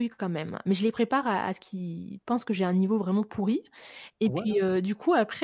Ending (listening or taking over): listening